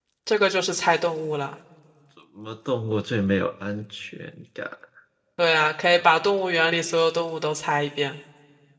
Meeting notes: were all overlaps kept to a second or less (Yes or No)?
Yes